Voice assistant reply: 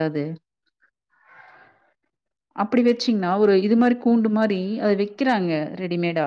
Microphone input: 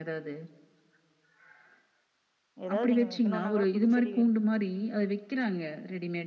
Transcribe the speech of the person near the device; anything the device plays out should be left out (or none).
எதாது நீங்க வெக்கணுன்னா கூட புதுச்செடி வெ